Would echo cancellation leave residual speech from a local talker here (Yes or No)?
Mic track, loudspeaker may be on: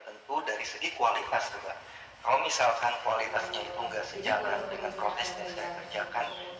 Yes